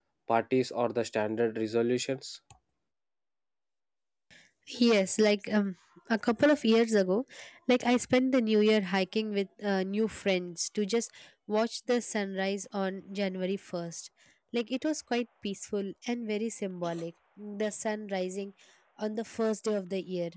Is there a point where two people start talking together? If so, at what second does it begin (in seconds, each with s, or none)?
none